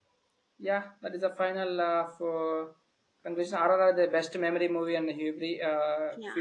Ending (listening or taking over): listening